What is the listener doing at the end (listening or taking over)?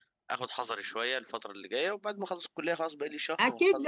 taking over